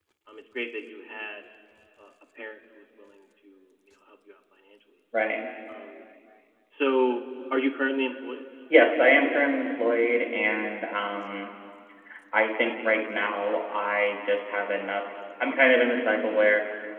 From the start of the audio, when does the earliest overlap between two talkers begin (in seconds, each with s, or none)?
none